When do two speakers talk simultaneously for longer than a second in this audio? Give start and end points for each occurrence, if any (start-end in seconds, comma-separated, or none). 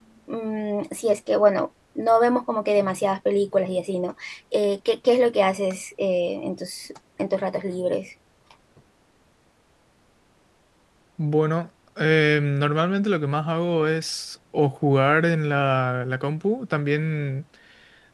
none